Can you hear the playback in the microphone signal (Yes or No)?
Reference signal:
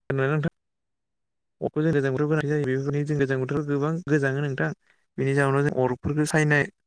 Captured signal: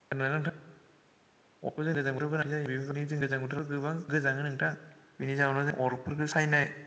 Yes